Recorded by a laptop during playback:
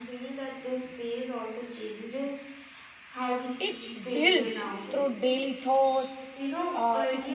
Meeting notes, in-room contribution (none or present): present